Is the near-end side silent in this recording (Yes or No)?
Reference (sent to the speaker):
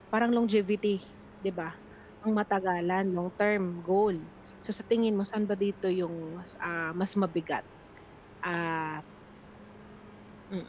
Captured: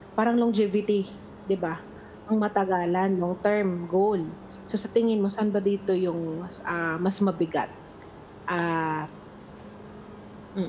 Yes